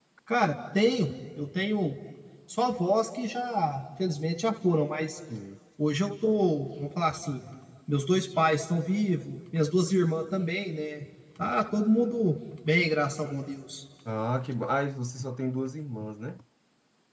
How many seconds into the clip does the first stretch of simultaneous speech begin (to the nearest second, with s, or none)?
none